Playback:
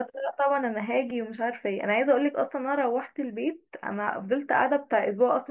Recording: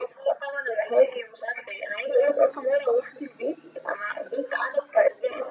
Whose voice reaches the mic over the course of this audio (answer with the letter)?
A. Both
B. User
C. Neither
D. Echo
D